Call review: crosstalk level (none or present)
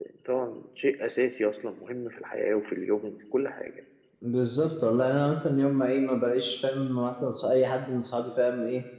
none